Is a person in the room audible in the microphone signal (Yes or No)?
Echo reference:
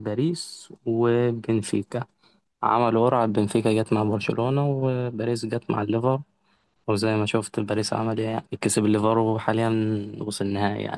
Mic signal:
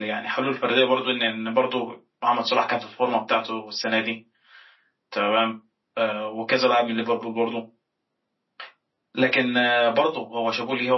Yes